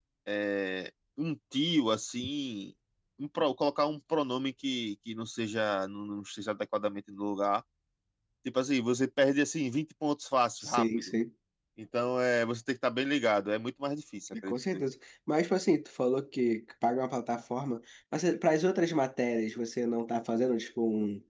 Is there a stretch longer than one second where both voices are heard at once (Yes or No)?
No